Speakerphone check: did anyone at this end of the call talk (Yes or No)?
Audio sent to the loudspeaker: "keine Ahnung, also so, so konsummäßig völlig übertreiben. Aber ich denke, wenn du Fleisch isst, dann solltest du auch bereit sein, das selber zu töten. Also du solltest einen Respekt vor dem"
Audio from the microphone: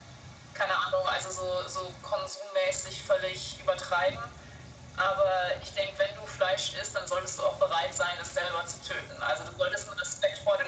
No